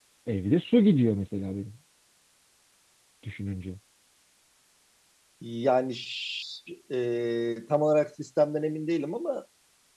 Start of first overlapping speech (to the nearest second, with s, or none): none